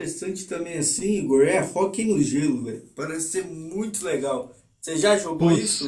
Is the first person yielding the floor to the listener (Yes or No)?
Yes